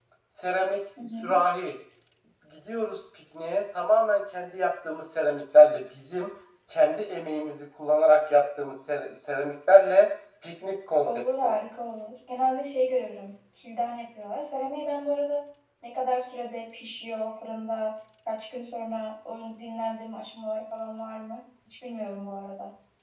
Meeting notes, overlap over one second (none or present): none